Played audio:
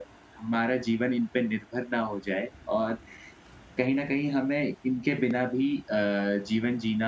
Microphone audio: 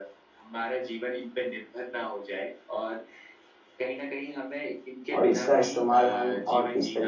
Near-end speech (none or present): present